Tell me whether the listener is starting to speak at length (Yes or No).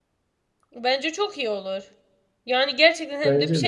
No